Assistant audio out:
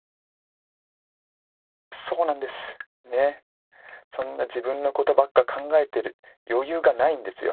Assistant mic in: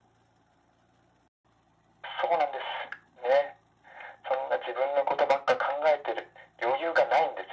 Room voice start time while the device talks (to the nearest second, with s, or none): none